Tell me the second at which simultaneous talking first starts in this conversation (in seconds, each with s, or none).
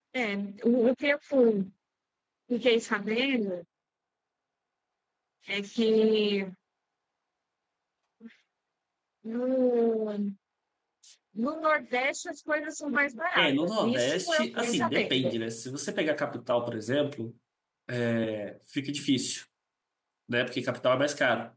13.4 s